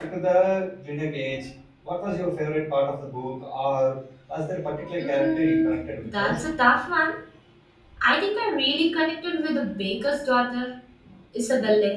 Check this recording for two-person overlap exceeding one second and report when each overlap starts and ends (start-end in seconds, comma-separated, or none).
5.0-6.4